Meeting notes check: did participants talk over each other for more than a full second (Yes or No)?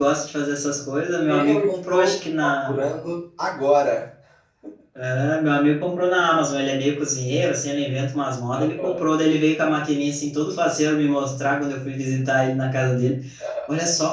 Yes